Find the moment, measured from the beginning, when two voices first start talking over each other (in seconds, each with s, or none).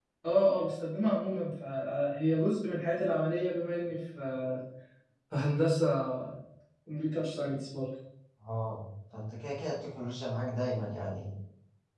none